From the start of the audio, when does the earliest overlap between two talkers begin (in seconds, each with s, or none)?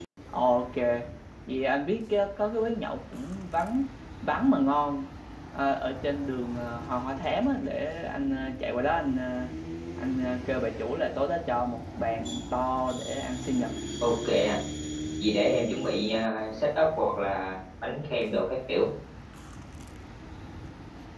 none